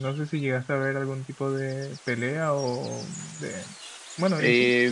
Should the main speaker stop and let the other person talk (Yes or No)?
Yes